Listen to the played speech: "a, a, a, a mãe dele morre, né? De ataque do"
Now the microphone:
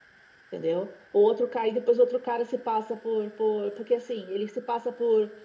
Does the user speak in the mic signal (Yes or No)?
Yes